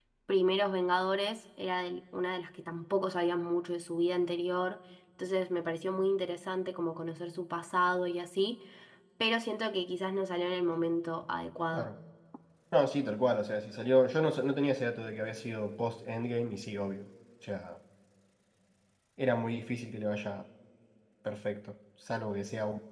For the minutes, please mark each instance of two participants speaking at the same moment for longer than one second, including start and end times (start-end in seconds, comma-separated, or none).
none